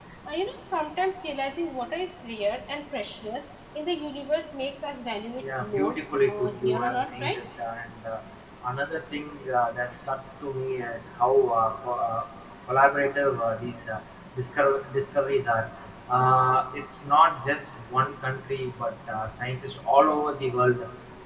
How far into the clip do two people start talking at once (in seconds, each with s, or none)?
5.4 s